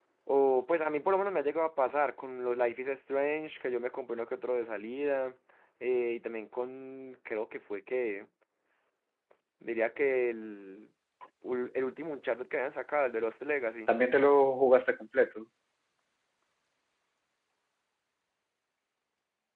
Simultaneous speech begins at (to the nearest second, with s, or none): none